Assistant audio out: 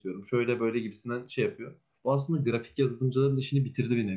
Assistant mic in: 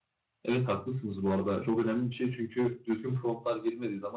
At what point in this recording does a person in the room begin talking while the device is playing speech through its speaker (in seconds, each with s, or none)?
0.4 s